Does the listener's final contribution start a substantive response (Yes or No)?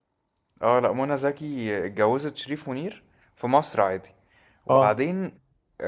No